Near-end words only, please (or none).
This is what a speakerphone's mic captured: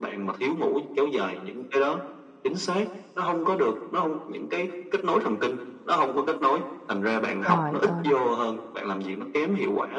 trời ơi,